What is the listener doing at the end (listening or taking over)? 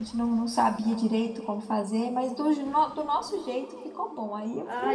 taking over